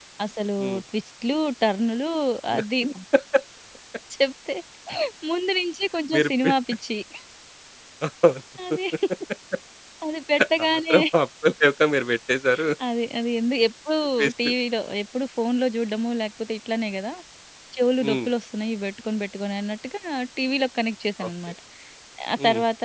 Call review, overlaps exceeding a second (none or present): none